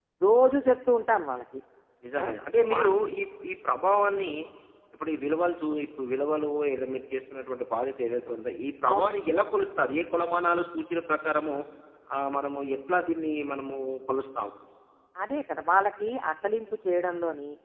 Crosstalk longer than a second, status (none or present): none